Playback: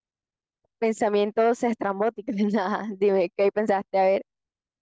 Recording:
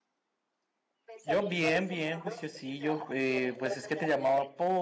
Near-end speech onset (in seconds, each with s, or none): 1.2 s